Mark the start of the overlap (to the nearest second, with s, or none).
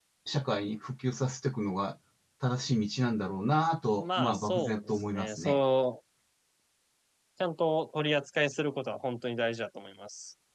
4 s